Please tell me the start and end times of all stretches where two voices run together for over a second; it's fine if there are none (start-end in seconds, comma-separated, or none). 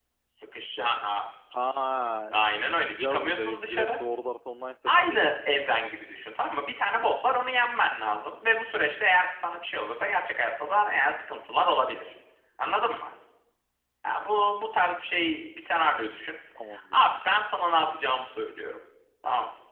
2.3-4.0